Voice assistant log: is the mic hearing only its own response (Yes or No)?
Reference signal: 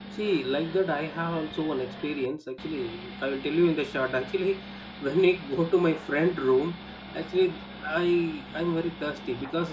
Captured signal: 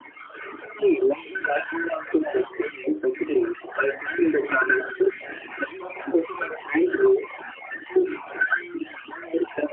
Yes